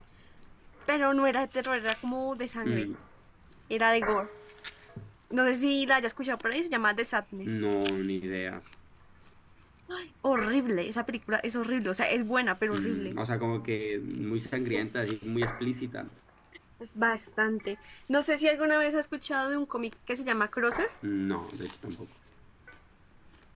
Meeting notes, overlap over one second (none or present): none